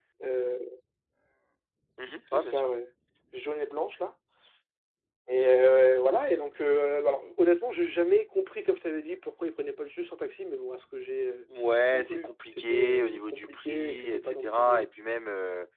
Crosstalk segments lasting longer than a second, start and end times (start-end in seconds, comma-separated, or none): 11.9-14.9